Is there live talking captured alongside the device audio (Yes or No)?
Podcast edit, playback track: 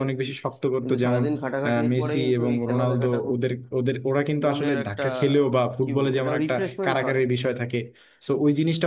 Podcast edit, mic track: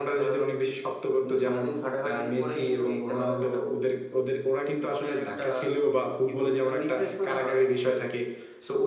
No